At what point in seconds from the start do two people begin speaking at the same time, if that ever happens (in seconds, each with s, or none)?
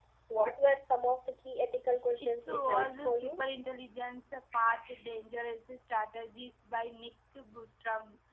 2.2 s